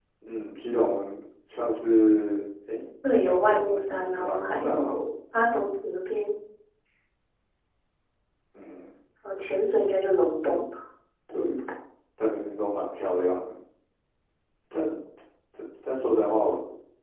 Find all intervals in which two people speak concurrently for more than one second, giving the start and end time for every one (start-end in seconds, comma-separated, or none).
3.2-4.9